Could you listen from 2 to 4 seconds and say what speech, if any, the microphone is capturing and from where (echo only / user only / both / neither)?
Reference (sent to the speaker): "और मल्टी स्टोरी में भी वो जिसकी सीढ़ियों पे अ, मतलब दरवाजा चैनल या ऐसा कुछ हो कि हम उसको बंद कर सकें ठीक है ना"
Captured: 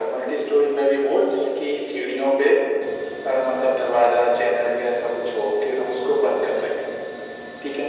echo only